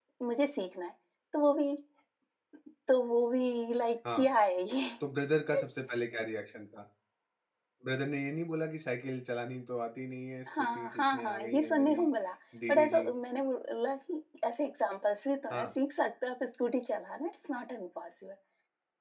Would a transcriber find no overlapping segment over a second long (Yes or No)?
No